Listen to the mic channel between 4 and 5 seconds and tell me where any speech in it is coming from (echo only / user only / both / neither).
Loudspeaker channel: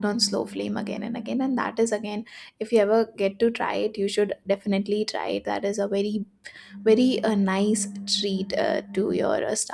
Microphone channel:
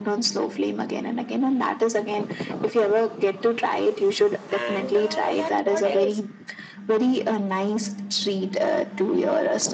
both